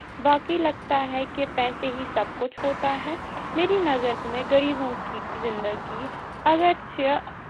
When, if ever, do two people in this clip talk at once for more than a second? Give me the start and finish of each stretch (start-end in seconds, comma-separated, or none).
none